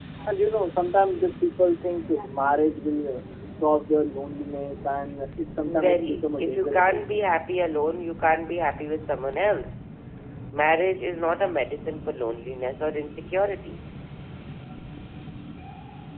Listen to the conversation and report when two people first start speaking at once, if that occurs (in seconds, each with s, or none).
5.7 s